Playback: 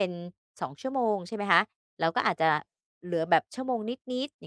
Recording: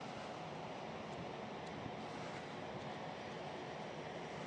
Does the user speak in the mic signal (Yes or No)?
No